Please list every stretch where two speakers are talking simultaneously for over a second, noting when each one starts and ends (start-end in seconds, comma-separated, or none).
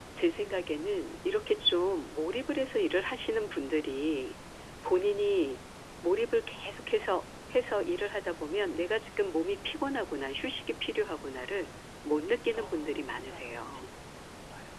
12.6-13.8